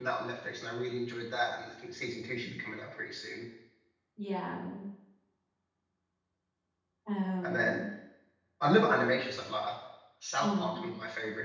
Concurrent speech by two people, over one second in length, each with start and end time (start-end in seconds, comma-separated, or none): none